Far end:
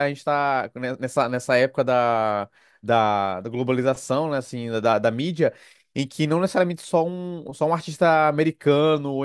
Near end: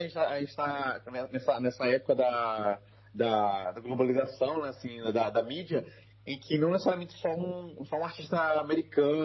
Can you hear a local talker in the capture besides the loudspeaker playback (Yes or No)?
No